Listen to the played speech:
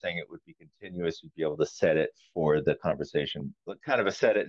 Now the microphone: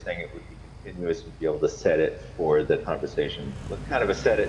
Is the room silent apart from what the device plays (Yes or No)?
Yes